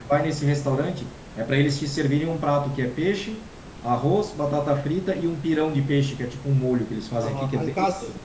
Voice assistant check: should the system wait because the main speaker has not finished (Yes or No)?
No